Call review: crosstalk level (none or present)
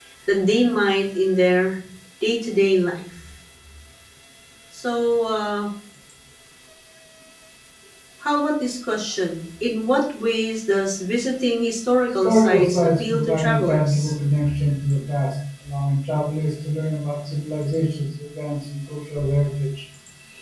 present